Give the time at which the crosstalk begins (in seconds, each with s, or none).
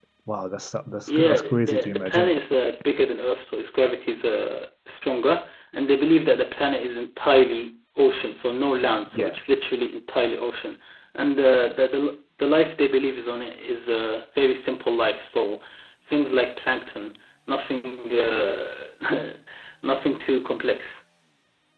1.1 s